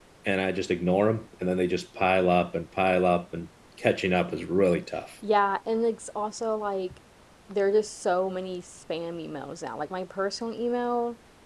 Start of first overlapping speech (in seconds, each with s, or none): none